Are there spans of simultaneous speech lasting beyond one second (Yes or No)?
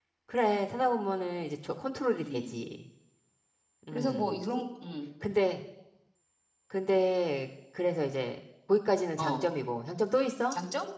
No